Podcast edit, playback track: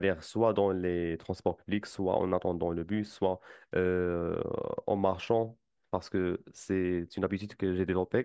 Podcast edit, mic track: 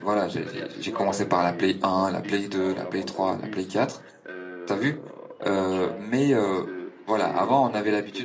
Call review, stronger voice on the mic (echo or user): user